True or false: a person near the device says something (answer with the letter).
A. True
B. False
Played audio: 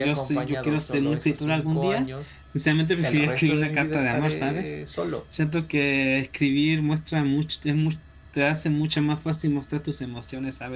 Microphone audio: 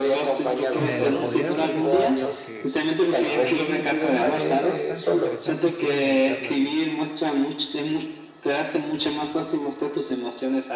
A